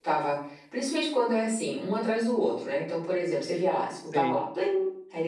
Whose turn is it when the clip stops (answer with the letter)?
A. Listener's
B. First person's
B